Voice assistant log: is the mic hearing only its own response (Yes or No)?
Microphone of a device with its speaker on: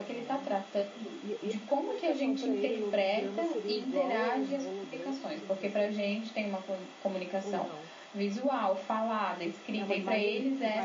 No